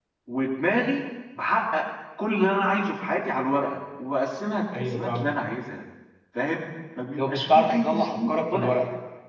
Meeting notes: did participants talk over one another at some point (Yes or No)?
Yes